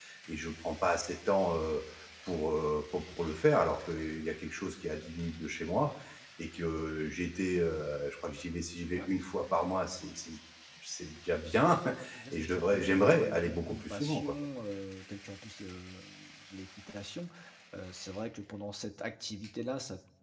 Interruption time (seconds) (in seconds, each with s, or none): 12.3 s